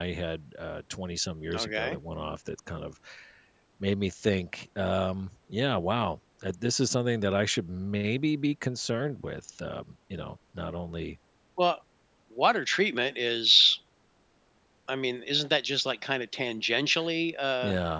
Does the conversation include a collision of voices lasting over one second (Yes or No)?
No